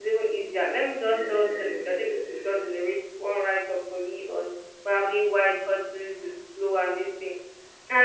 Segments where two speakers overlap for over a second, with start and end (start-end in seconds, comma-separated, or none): 1.0-2.6